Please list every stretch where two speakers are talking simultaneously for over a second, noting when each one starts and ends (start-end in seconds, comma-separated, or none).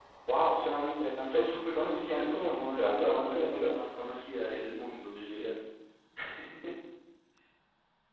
1.2-3.7